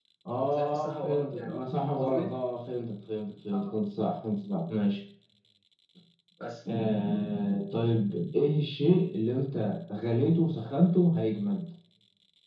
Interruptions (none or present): present